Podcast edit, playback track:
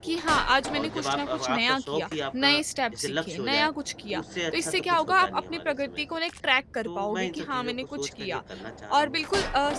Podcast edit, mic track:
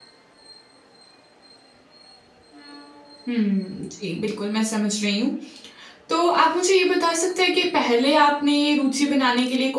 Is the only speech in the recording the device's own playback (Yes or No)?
No